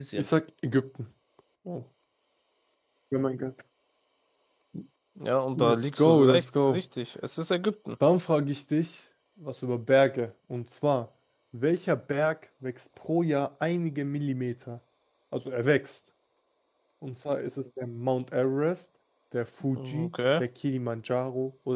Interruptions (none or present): present